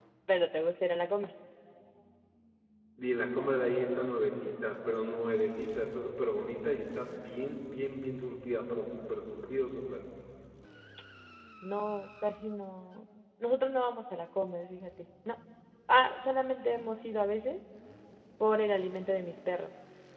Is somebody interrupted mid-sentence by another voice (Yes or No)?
No